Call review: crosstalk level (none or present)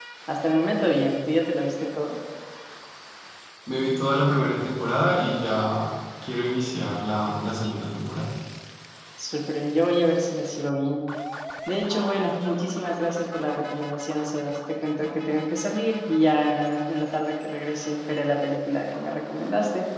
none